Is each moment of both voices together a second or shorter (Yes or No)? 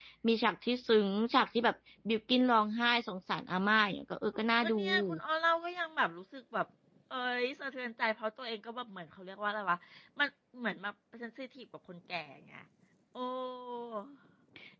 Yes